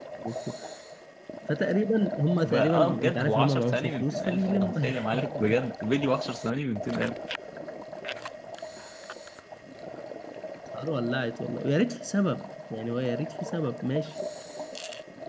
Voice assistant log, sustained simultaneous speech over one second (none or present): present